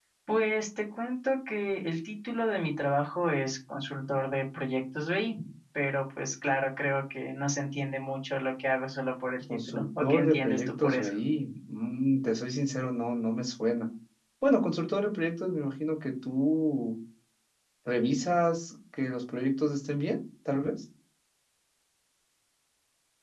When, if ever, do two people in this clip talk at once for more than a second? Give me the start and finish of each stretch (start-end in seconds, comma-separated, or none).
9.7-11.1